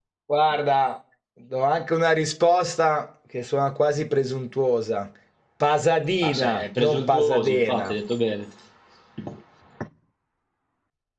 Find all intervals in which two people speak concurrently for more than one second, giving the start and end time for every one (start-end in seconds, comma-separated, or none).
6.2-7.9